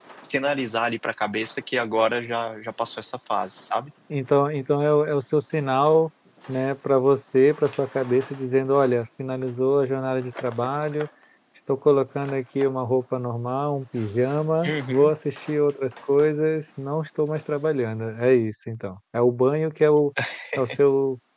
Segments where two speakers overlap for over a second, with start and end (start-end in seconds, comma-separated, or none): none